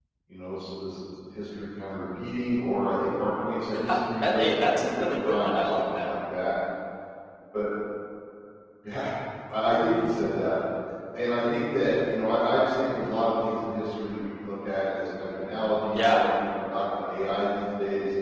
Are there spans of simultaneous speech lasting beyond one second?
Yes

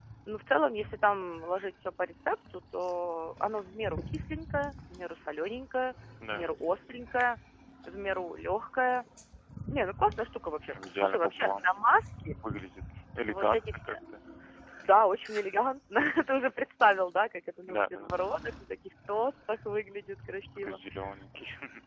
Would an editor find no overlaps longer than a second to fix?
No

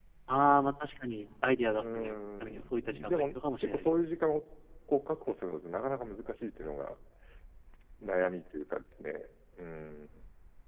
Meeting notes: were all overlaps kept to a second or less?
No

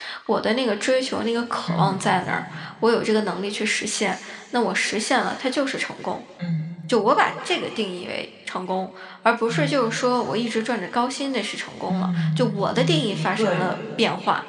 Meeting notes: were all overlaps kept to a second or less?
No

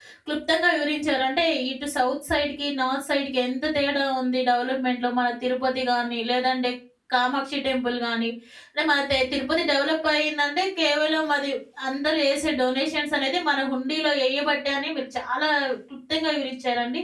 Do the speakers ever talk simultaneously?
No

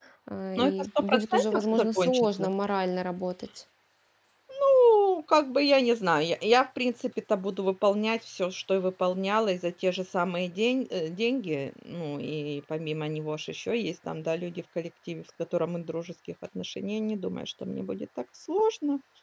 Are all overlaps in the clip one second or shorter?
No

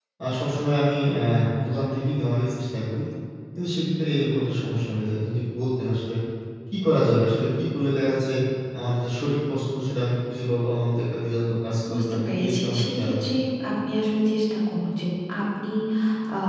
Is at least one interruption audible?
Yes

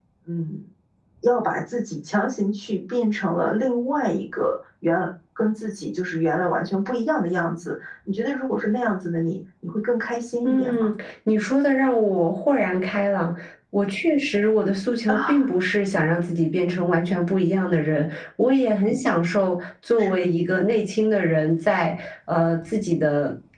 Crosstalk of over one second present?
No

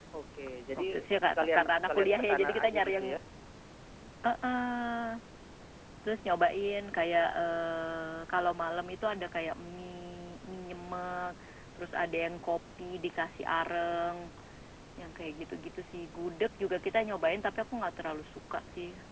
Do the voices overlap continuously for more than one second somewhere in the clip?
Yes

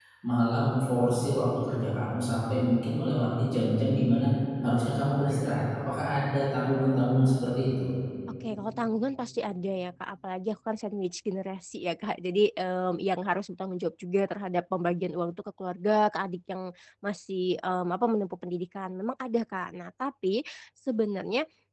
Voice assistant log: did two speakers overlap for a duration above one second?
No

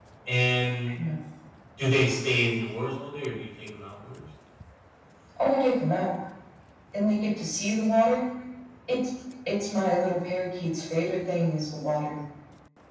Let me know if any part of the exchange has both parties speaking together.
No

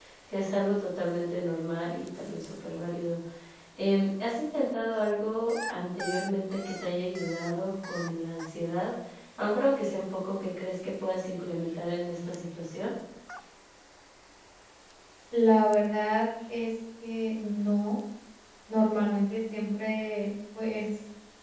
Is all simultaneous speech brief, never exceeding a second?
Yes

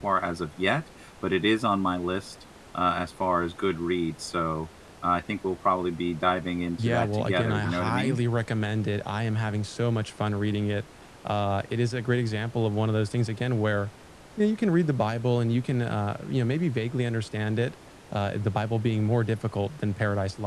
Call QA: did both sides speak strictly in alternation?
No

